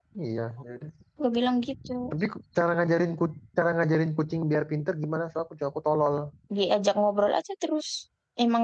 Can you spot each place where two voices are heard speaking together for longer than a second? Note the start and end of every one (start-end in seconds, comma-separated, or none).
none